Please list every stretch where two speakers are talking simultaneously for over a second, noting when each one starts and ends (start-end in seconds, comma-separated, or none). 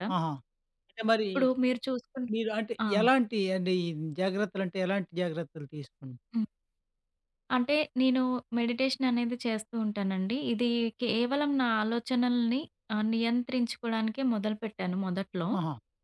none